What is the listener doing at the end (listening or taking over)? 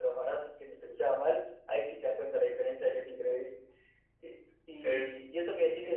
listening